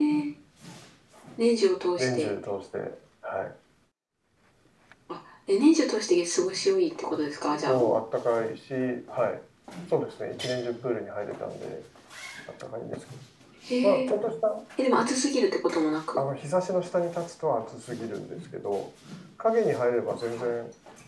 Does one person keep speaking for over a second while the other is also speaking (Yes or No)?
No